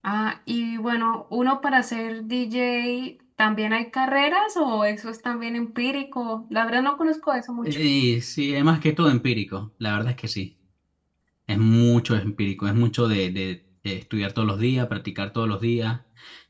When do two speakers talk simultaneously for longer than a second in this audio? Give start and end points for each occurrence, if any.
none

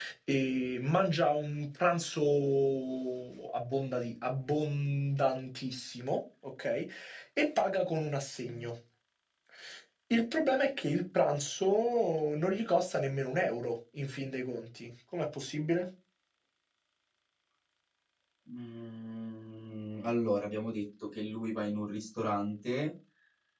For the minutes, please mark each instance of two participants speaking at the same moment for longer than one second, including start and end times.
none

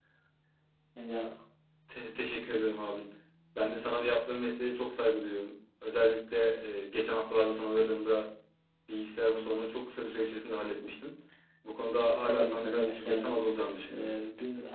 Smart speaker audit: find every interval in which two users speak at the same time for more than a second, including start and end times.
12.0-13.3

